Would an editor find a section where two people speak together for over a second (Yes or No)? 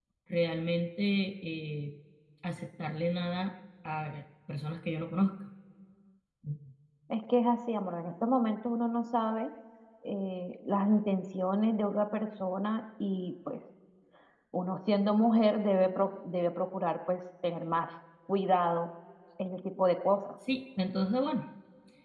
No